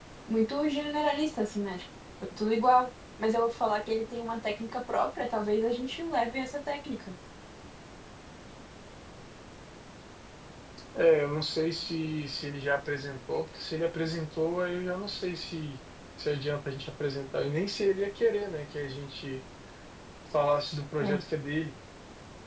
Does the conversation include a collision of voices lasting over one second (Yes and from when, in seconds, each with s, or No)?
No